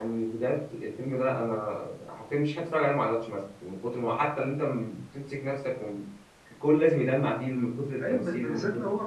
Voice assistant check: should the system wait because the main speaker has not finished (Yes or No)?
No